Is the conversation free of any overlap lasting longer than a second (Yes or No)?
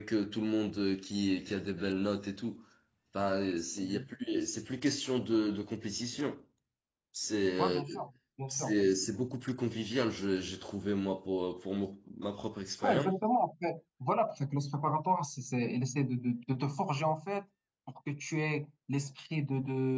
Yes